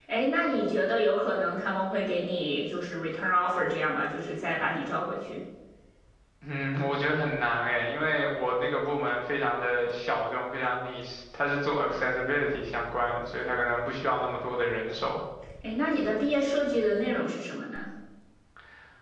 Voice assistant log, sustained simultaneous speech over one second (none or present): none